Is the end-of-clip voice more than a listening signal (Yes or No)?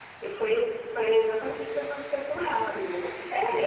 Yes